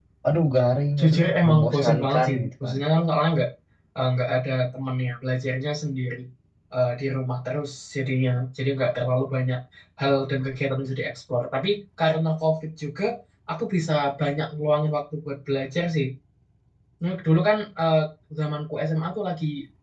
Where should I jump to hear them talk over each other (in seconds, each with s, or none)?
1.0 s